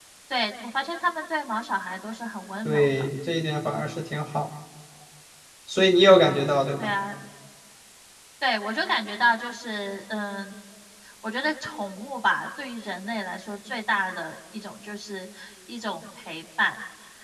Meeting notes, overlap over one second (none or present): none